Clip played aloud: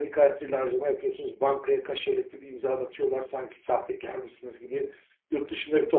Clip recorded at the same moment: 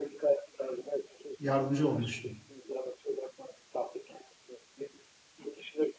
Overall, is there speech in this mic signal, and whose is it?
both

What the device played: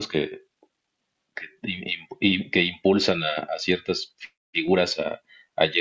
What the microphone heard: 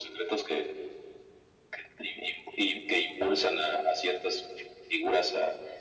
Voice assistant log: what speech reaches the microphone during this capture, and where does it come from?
echo only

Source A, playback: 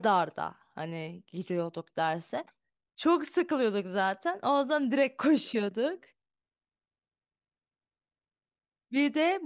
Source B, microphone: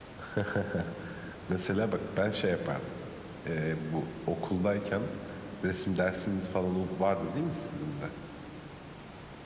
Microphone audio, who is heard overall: user only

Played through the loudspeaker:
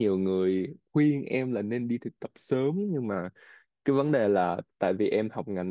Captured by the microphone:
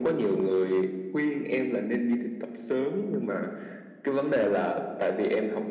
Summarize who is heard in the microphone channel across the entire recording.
echo only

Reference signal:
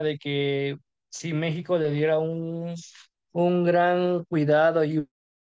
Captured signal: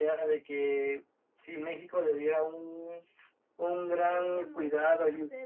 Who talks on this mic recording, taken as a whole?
both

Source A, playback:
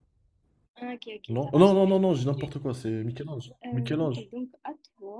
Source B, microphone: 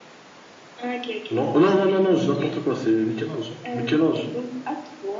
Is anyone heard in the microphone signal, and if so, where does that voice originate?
echo only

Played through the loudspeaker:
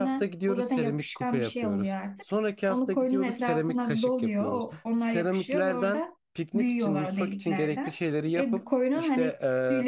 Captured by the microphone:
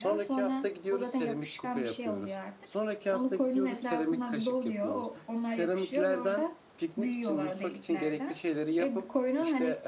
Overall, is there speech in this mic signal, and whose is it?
echo only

